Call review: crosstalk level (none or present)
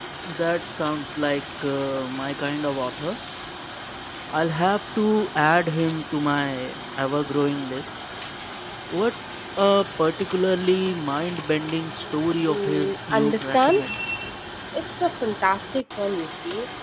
present